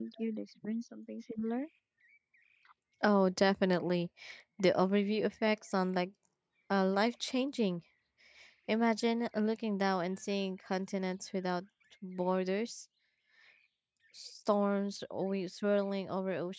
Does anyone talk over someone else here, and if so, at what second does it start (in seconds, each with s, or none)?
none